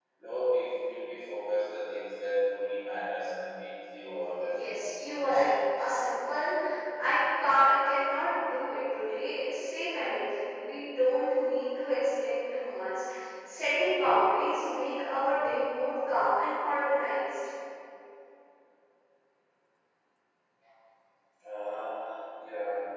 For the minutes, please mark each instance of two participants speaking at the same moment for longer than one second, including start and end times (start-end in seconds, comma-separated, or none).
4.4-5.9